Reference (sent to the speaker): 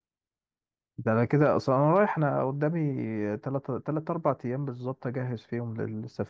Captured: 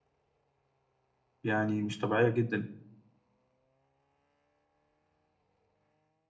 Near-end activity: present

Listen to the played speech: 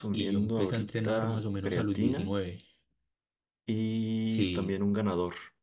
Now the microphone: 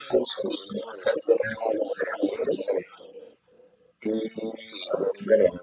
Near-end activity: none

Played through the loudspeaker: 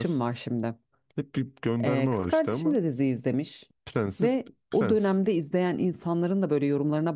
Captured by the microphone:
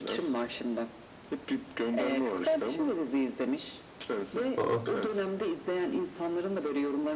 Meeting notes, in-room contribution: present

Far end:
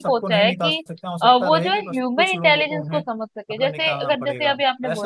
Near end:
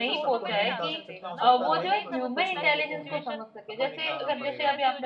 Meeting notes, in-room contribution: present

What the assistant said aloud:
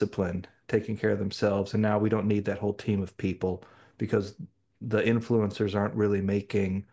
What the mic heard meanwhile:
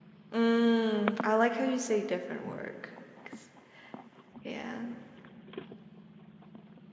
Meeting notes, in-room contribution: present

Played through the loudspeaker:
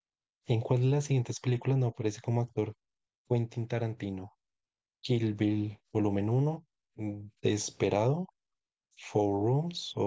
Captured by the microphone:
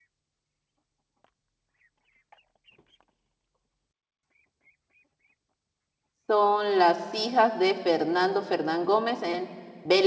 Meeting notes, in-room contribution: present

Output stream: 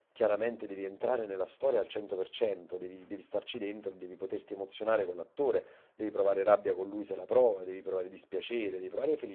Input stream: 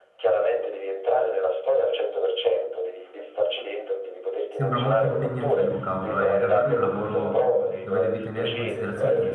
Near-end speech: present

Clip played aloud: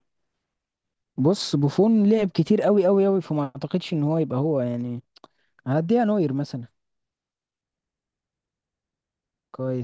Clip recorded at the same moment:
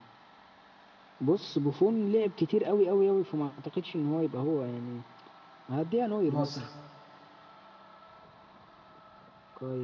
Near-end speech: present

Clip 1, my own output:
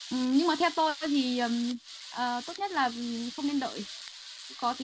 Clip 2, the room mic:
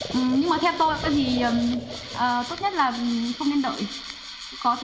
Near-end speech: none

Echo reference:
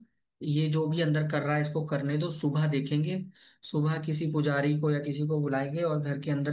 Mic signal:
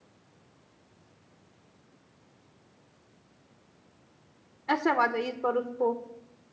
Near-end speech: present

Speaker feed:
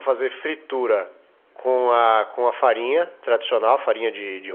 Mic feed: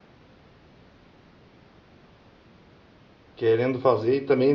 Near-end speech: present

